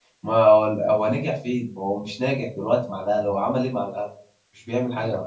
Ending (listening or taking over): taking over